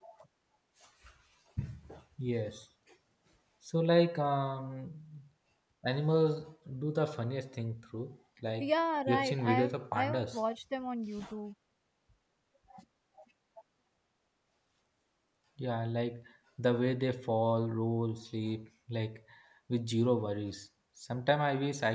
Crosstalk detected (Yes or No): Yes